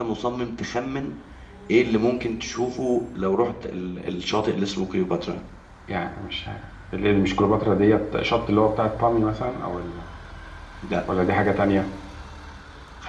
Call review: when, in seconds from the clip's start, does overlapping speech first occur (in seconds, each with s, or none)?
none